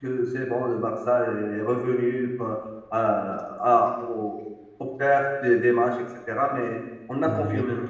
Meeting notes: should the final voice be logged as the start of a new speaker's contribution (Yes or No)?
No